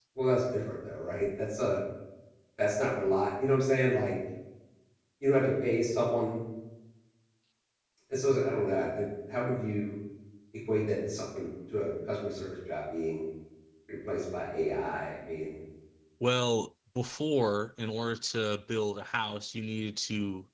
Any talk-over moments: No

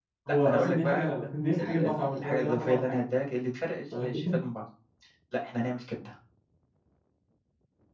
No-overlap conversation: No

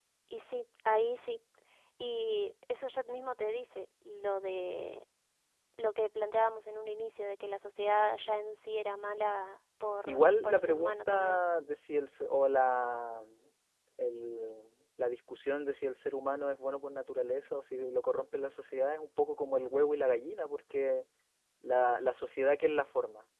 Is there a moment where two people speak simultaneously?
Yes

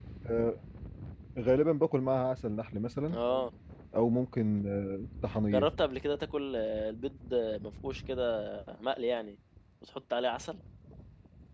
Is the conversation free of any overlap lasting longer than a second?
Yes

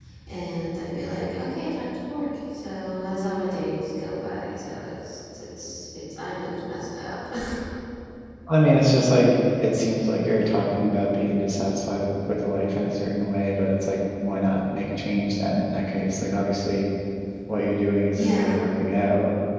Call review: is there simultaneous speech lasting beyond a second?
No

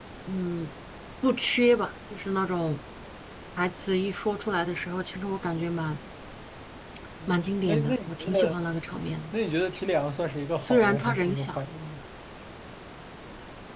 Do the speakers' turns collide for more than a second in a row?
Yes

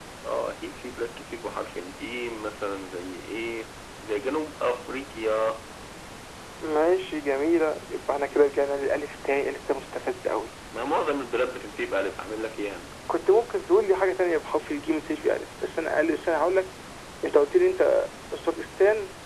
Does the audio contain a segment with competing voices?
No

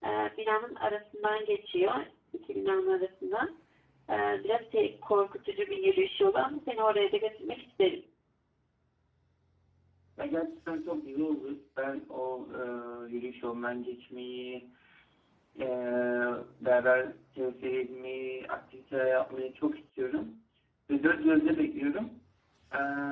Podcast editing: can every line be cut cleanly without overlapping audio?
Yes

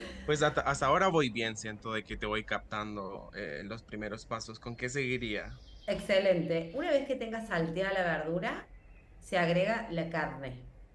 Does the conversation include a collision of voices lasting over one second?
No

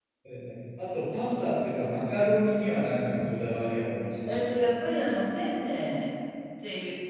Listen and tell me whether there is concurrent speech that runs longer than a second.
No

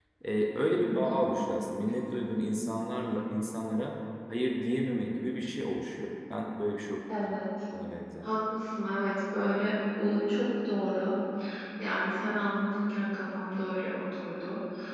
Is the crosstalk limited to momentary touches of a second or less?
Yes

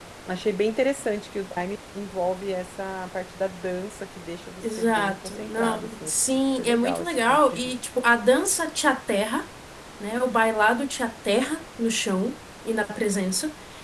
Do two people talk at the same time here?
Yes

